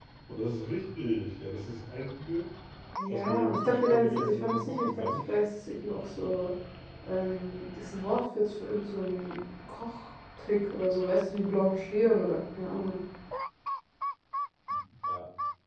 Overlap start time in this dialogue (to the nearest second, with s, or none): 3 s